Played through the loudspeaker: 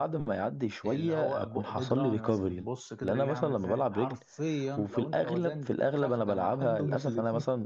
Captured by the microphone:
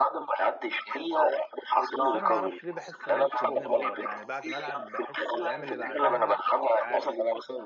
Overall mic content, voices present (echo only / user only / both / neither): both